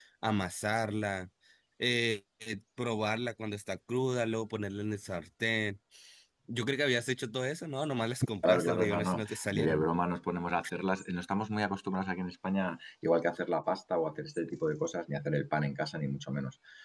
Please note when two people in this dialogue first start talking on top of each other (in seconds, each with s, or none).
8.4 s